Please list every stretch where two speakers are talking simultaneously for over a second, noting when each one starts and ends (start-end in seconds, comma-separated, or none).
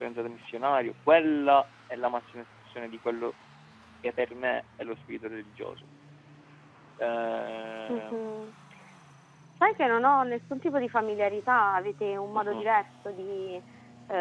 none